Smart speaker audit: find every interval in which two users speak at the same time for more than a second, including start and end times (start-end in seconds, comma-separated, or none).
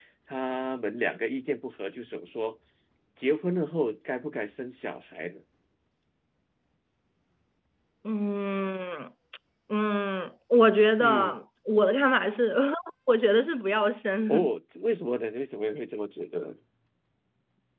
none